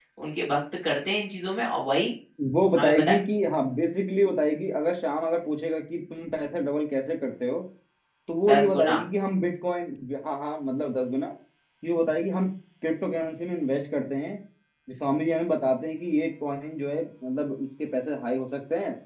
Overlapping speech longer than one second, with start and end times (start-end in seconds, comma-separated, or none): none